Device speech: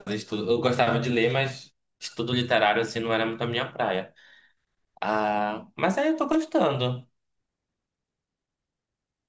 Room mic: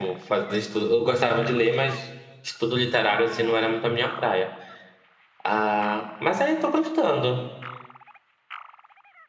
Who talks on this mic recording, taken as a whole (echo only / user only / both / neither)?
echo only